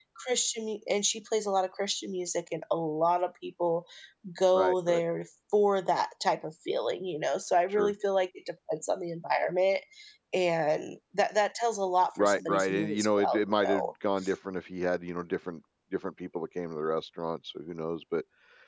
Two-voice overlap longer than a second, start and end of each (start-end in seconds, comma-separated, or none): 12.2-13.9